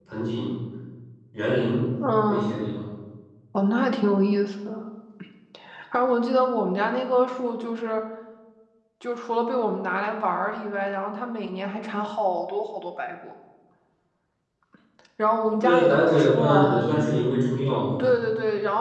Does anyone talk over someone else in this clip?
Yes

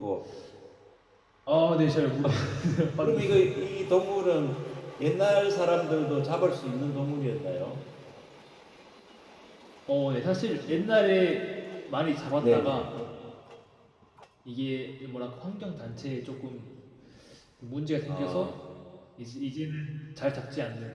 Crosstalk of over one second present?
No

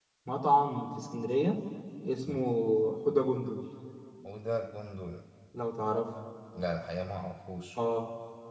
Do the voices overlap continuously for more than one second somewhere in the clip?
No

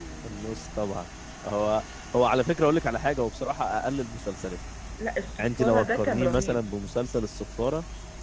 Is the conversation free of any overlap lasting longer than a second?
No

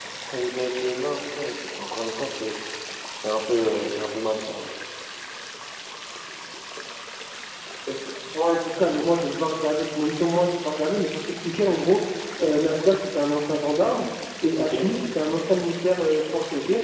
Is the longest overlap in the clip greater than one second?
No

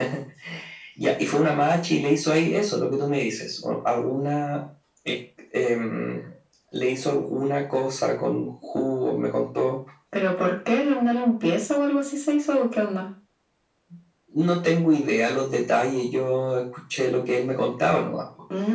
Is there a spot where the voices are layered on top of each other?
No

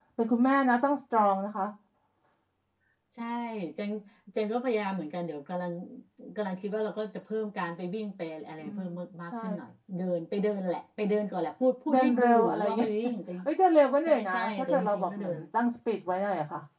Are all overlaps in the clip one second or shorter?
No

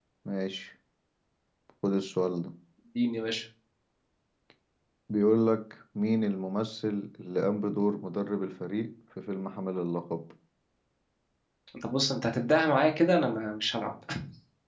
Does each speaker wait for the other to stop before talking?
Yes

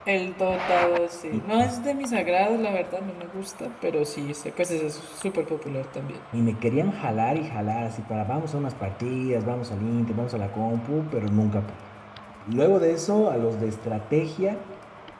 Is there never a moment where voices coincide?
Yes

